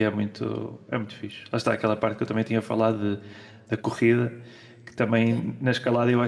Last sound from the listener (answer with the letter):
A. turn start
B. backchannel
B